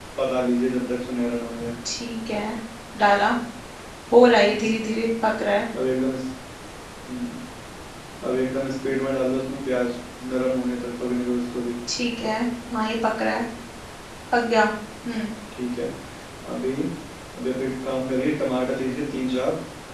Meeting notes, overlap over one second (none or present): none